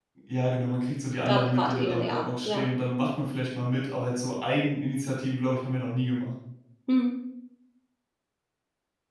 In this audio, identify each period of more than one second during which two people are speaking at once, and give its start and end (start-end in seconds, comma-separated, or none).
1.3-2.6